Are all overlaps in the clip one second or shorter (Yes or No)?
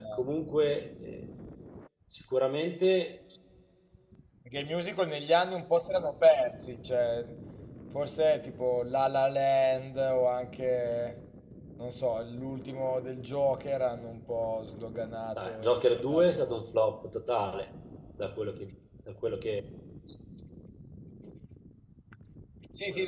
No